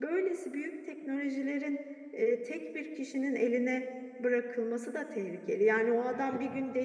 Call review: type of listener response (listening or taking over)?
listening